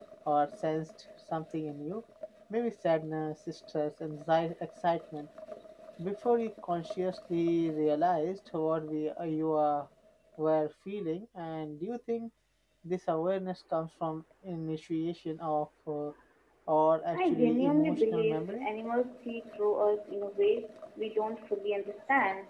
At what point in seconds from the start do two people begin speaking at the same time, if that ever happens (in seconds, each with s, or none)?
17.1 s